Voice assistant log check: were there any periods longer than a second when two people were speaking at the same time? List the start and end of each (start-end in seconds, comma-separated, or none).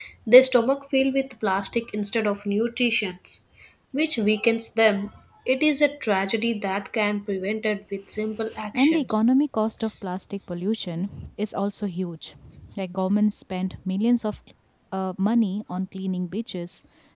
none